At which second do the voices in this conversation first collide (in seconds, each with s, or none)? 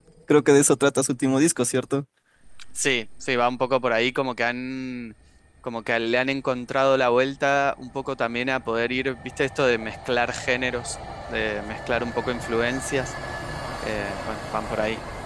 none